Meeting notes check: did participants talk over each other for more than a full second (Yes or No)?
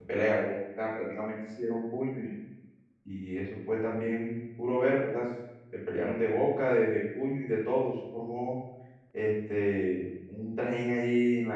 No